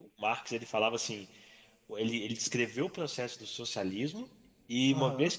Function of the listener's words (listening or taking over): taking over